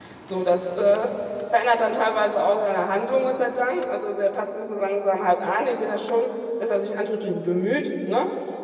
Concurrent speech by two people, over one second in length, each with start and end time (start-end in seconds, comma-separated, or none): none